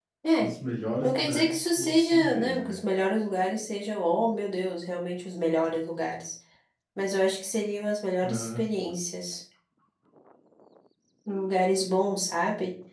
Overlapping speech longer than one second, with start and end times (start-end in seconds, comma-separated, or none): 1.0-2.8